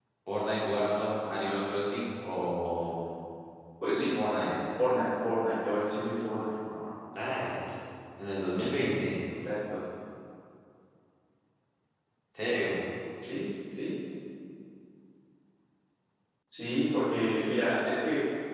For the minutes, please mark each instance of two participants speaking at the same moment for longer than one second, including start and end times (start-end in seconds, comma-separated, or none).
none